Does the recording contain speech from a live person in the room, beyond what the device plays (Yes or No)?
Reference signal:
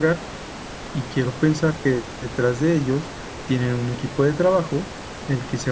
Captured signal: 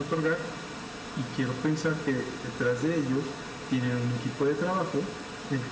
No